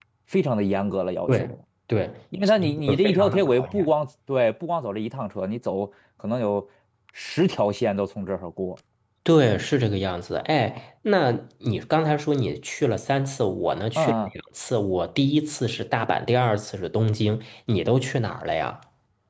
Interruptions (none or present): present